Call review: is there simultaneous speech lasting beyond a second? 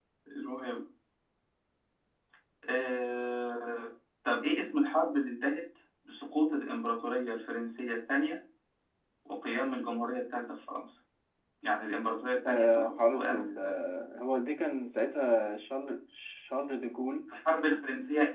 Yes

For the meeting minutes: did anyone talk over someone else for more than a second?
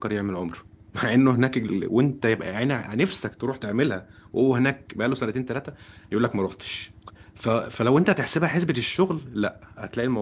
No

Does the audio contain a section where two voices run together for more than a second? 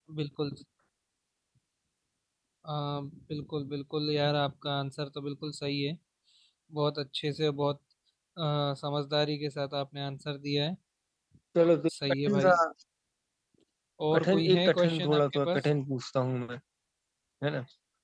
Yes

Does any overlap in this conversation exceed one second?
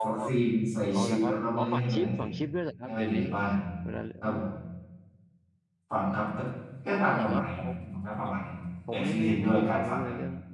Yes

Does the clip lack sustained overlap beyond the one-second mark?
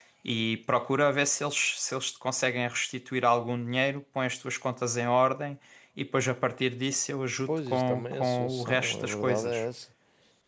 No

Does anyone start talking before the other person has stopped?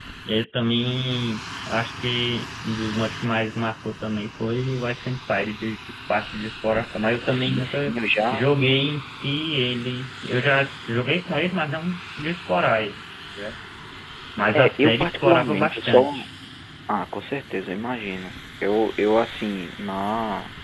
Yes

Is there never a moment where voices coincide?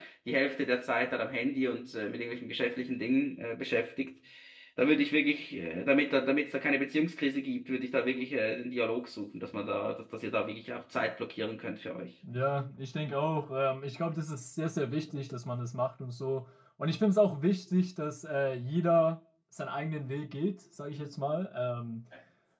Yes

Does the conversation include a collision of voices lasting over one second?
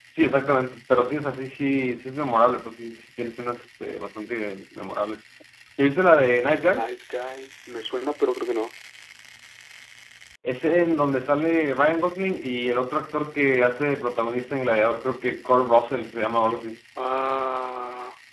No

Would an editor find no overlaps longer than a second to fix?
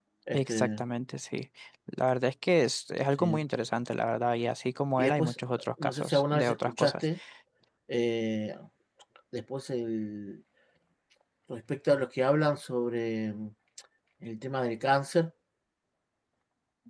No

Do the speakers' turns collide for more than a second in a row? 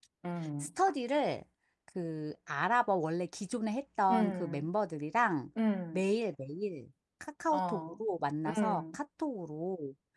No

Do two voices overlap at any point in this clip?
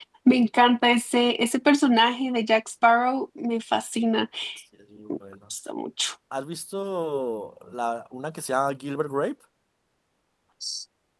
No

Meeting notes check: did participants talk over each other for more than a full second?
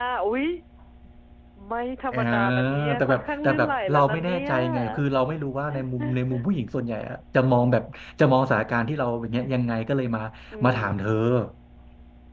Yes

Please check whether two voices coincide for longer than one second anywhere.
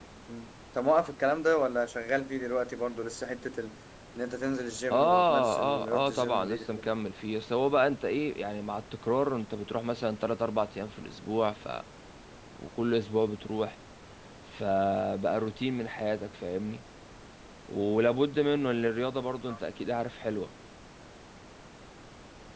Yes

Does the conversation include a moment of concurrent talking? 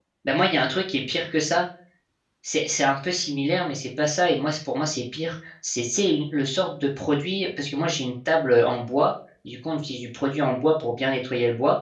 No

